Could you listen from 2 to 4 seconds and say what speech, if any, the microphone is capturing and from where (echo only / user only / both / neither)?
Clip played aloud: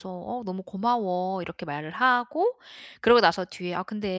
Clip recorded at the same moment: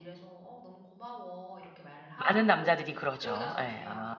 both